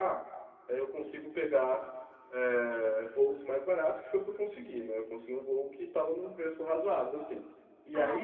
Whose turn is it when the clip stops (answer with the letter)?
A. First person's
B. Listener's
B